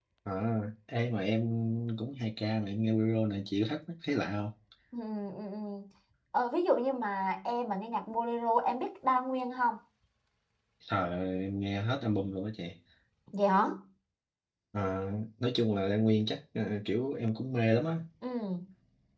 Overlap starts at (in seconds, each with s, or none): none